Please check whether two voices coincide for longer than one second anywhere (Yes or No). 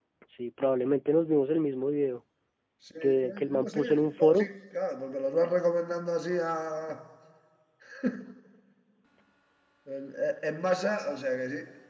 Yes